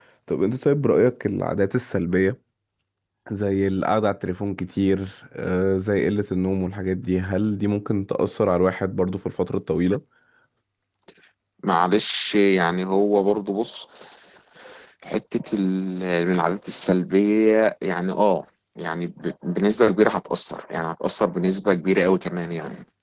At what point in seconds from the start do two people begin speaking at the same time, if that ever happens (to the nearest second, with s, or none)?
none